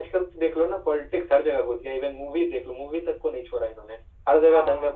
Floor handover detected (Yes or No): No